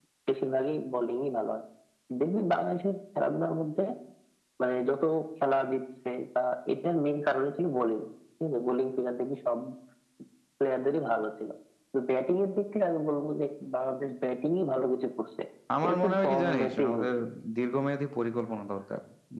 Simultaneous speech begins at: 15.8 s

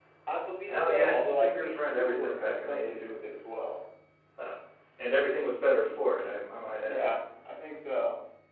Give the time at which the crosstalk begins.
0.7 s

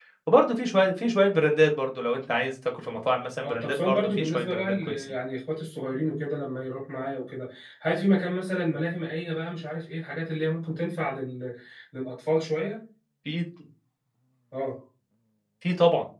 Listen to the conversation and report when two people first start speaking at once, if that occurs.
3.4 s

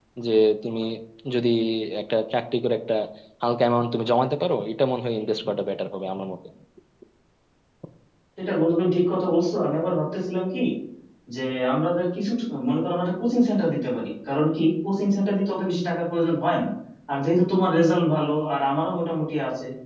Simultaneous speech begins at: none

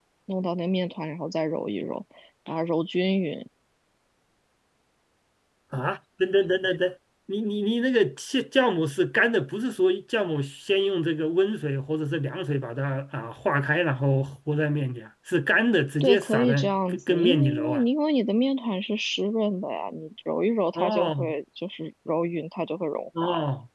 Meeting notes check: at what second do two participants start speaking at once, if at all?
16.0 s

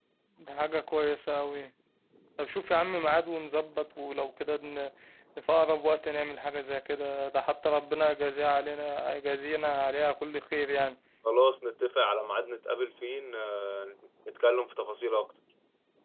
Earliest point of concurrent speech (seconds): none

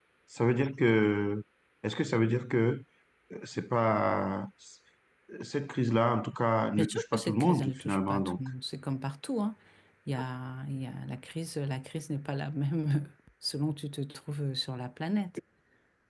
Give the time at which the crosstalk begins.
6.8 s

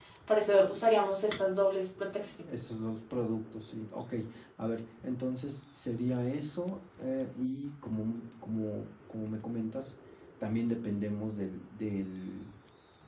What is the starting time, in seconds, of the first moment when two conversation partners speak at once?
none

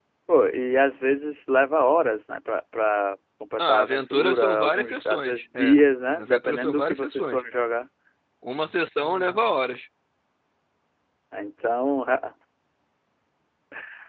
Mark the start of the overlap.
3.6 s

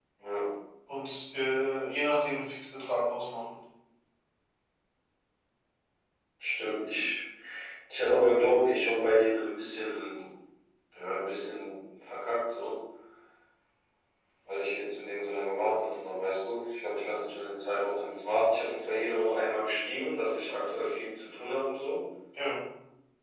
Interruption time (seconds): none

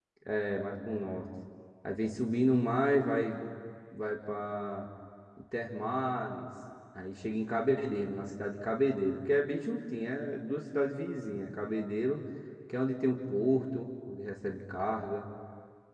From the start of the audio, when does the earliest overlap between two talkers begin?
none

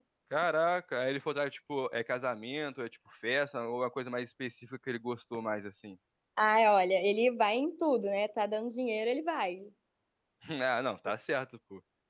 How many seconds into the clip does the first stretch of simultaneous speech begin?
none

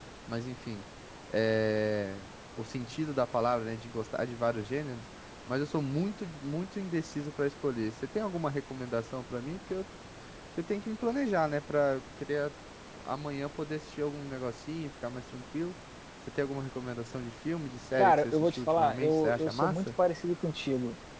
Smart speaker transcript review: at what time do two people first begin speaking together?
18.0 s

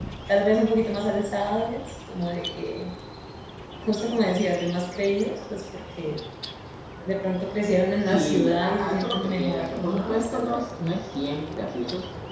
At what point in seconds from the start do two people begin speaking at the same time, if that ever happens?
8.0 s

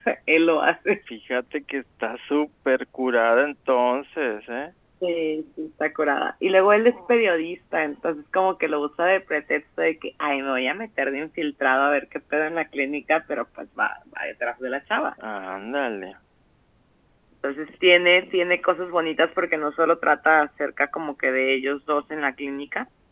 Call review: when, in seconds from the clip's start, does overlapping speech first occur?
none

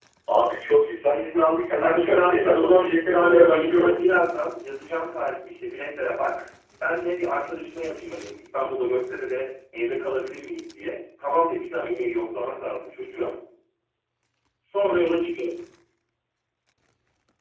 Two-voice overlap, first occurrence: 1.8 s

